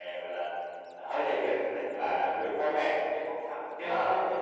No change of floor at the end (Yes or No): Yes